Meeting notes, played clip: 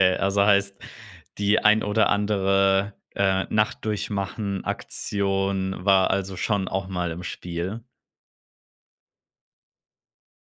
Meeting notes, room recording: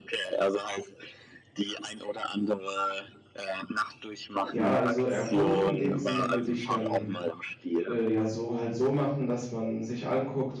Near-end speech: present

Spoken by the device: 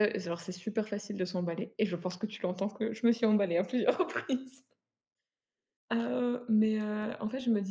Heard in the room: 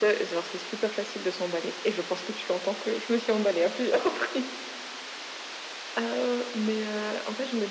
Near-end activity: none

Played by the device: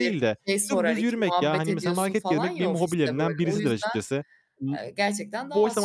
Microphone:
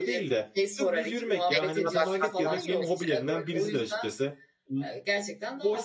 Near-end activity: present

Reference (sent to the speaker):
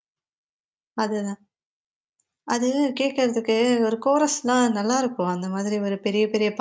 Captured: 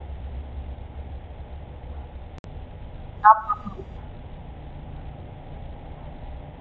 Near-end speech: present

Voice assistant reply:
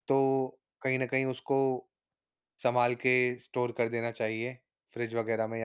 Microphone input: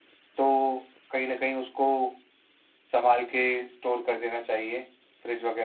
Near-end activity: none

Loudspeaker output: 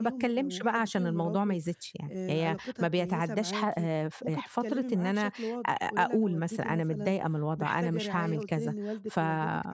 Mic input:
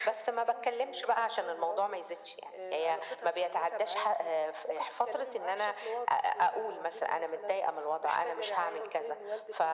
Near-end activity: none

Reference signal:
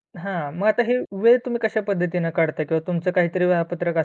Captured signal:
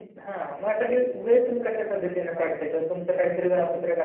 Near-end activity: none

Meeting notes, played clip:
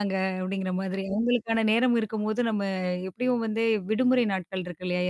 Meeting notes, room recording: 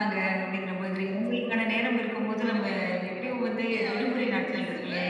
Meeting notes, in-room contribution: present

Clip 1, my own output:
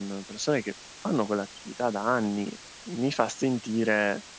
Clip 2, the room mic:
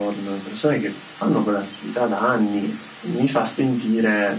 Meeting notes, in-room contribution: none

